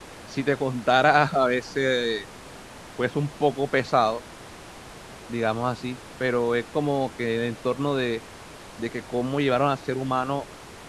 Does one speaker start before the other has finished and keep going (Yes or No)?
No